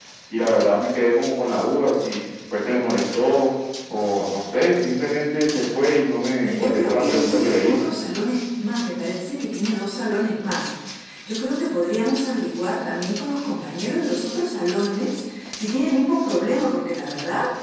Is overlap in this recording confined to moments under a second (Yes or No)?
No